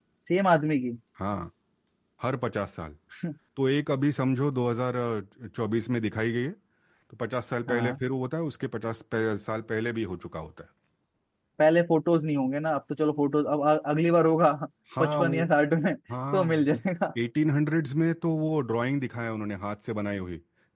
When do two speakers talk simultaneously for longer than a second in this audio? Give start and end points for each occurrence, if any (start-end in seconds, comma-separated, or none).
none